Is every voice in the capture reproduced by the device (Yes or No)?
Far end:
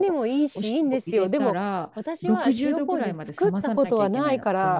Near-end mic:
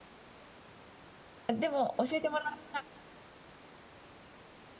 No